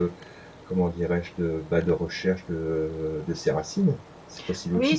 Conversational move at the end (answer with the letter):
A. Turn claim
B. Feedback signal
A